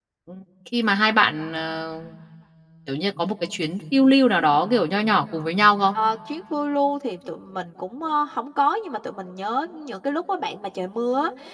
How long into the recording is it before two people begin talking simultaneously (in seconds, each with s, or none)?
none